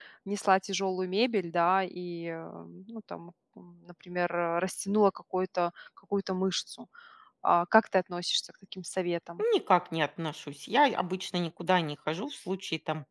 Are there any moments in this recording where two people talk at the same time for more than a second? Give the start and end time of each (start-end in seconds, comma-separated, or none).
none